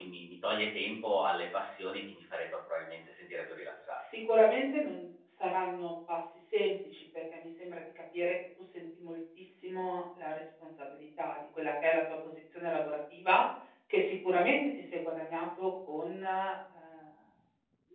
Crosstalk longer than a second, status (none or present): none